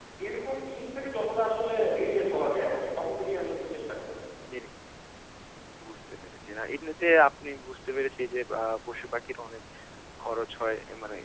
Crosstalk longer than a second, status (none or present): none